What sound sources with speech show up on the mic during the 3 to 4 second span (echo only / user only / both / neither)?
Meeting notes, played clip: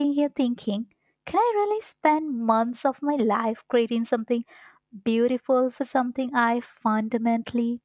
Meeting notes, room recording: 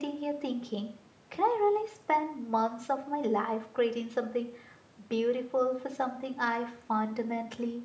echo only